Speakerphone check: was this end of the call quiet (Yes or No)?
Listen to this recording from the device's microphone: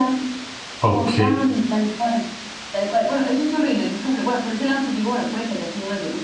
No